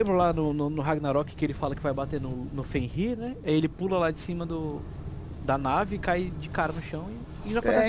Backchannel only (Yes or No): No